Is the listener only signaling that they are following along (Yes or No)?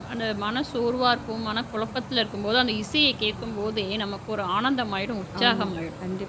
No